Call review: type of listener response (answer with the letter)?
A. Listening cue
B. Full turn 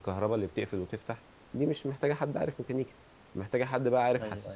A